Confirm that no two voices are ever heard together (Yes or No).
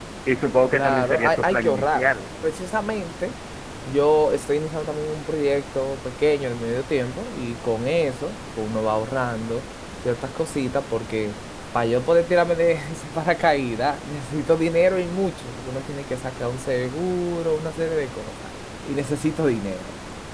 No